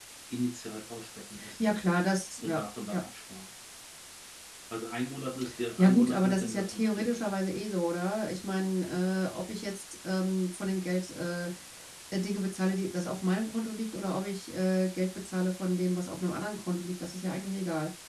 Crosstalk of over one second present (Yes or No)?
Yes